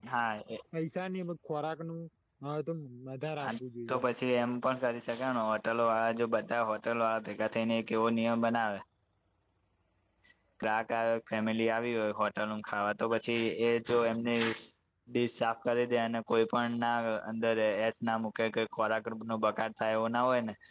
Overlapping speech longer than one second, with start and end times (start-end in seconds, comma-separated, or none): none